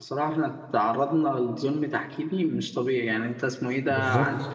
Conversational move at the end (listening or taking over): listening